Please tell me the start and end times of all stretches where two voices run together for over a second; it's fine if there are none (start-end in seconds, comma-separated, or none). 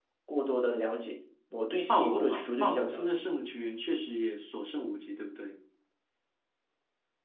1.9-3.2